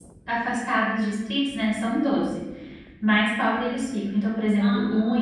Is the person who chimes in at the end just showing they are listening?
Yes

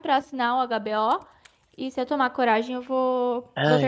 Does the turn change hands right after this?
Yes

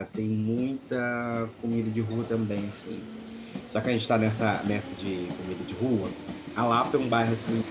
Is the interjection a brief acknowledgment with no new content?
Yes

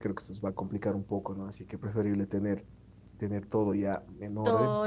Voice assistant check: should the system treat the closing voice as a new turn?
Yes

